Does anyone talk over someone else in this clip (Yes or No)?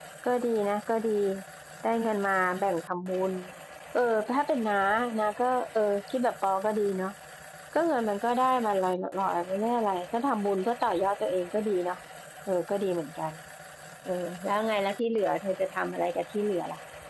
No